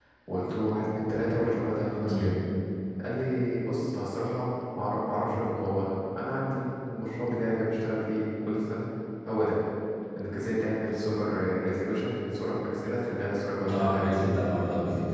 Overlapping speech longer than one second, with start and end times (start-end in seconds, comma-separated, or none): none